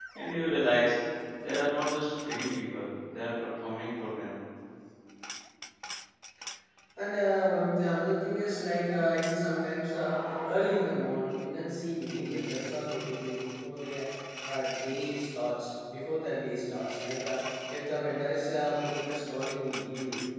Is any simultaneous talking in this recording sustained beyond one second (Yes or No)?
No